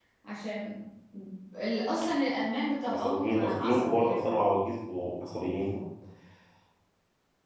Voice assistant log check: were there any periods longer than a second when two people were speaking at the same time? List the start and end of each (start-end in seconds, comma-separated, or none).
2.9-4.3